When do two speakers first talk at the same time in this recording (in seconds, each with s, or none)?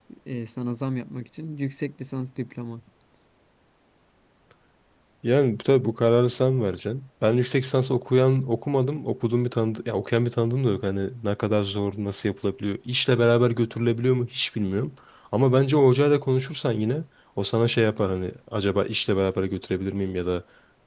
none